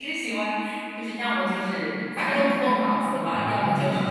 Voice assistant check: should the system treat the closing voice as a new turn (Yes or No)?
No